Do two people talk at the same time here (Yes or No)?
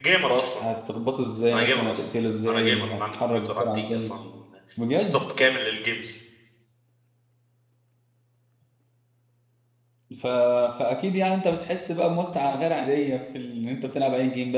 Yes